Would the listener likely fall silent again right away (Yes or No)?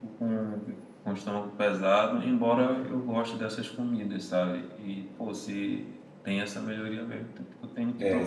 No